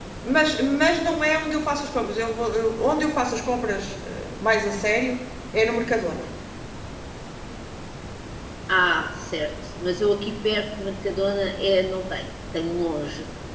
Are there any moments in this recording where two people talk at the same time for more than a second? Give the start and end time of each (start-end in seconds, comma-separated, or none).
none